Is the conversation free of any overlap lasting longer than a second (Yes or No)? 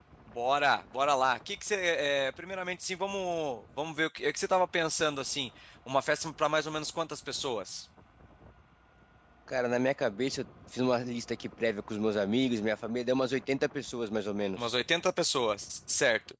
Yes